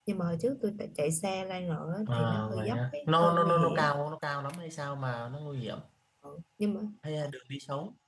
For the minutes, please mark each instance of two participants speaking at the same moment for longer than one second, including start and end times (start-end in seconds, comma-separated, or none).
2.1-3.9